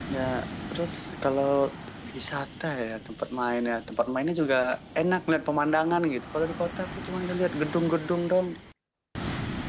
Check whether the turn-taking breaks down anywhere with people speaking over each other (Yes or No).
No